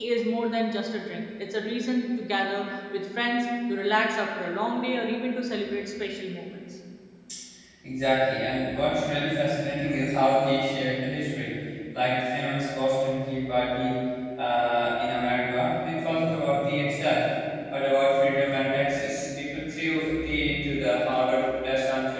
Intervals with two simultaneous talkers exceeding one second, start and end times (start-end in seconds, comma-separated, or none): none